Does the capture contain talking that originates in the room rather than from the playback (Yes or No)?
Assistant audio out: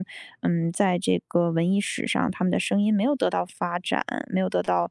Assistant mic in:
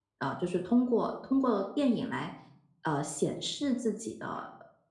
Yes